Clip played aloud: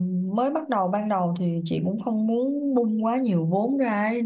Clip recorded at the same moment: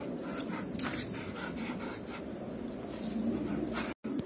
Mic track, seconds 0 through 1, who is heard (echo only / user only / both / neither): neither